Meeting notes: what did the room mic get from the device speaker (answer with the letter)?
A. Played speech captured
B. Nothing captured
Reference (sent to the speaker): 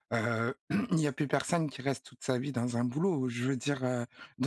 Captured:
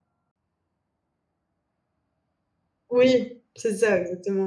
B